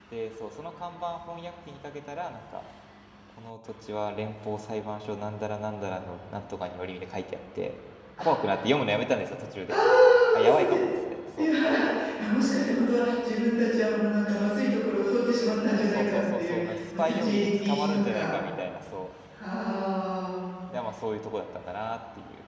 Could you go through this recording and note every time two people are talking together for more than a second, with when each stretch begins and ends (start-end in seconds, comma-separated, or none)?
15.9-18.3